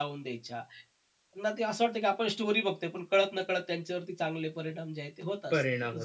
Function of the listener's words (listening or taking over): taking over